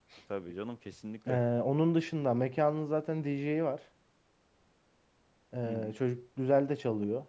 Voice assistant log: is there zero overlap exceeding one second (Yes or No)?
Yes